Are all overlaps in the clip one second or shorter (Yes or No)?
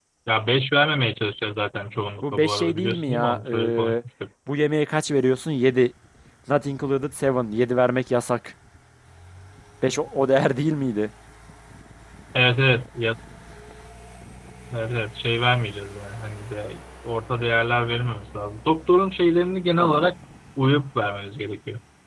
No